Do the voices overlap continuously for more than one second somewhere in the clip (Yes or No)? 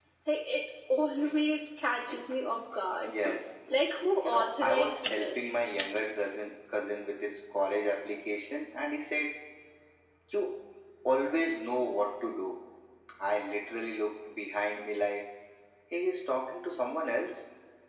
Yes